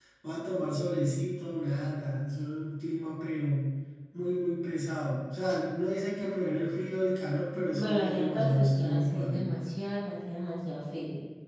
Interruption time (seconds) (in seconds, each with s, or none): 7.7 s